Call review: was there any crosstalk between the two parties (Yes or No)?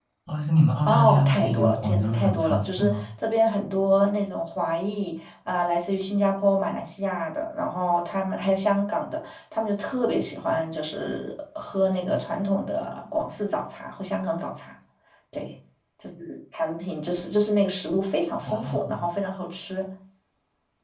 Yes